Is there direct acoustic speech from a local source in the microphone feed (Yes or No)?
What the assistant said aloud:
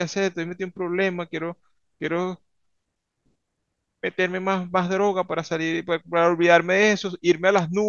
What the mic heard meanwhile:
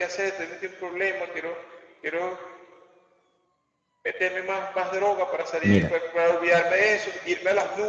Yes